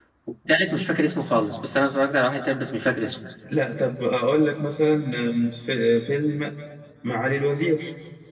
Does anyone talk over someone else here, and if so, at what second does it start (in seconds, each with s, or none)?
none